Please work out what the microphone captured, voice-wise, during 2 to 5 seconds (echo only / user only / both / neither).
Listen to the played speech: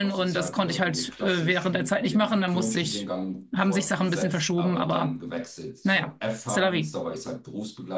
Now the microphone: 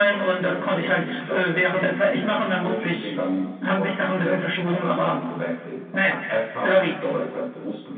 echo only